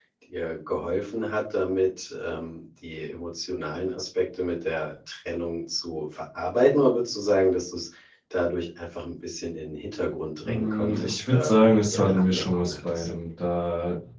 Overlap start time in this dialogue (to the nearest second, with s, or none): 10 s